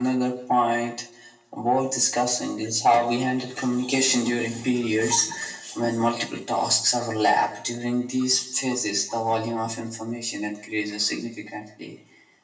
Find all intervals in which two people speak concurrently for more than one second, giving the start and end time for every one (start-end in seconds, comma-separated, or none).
none